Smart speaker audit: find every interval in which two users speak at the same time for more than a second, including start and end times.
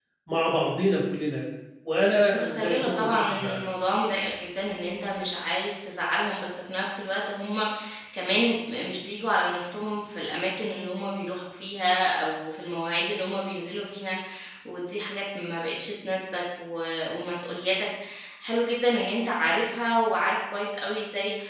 2.3-3.6

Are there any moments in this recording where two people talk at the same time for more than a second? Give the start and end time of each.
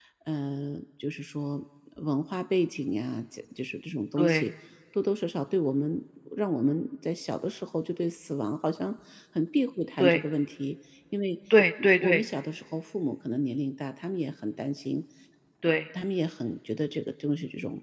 none

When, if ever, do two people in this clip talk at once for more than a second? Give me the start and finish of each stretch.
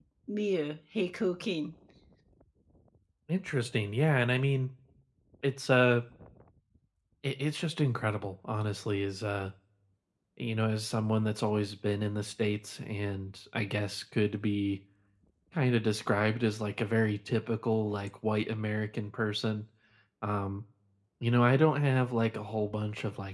none

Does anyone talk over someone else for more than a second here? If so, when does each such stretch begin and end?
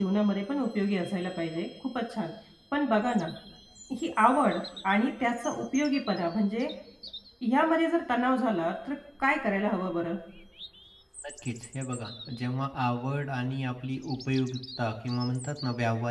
none

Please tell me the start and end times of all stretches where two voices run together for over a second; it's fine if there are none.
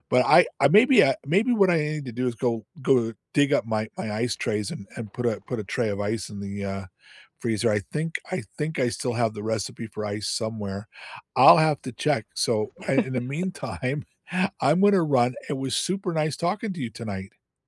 none

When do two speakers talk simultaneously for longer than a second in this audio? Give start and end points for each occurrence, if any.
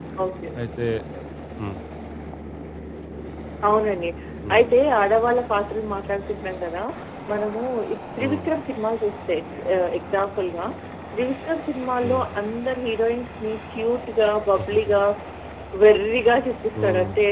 none

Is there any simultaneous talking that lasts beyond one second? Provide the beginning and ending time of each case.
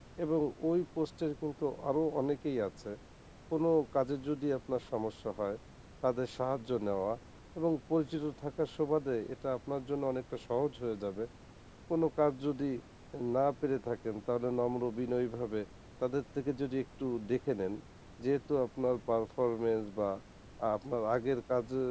none

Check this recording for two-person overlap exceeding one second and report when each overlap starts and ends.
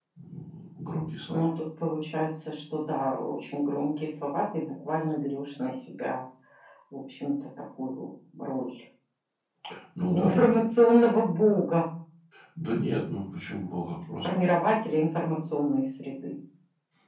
none

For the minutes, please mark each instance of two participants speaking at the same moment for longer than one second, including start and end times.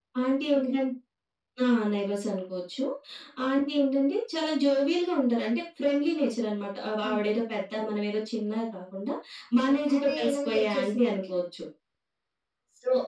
9.6-11.3

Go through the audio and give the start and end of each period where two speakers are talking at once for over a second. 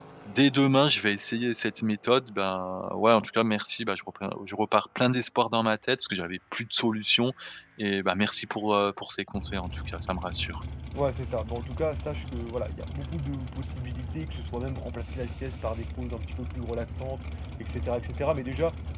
none

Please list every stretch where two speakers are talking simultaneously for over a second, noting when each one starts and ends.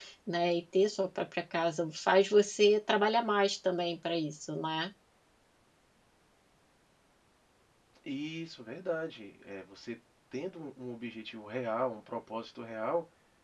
none

